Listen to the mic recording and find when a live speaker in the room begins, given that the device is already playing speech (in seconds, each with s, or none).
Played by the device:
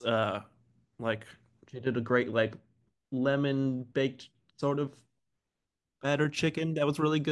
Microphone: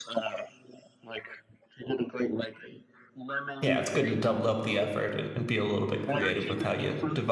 3.6 s